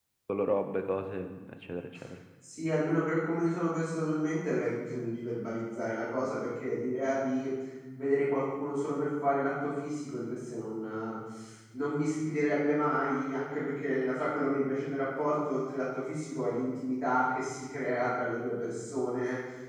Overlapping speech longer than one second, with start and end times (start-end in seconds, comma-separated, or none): none